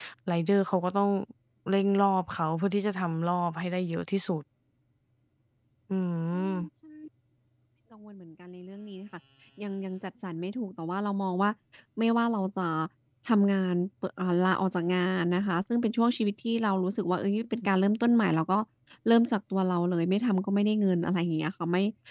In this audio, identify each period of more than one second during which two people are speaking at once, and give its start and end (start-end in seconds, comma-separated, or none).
none